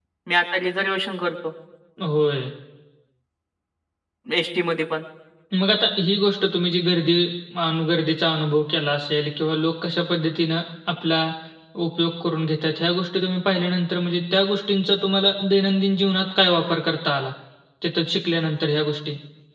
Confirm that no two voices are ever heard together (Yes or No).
Yes